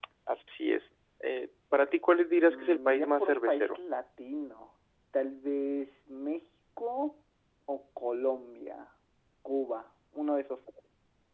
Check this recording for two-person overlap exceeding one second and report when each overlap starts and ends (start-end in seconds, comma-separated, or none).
2.4-3.8